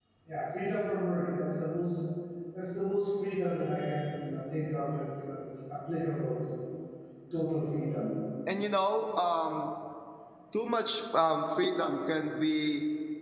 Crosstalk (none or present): none